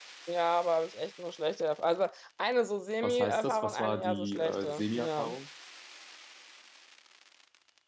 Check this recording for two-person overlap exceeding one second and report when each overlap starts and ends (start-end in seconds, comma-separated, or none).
3.0-5.3